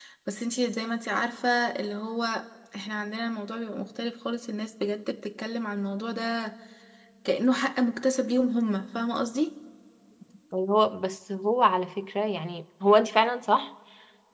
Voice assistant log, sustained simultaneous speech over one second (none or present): none